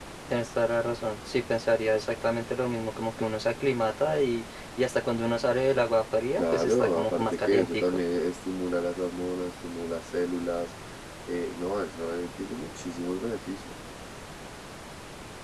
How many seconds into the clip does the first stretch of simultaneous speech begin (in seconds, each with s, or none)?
6.4 s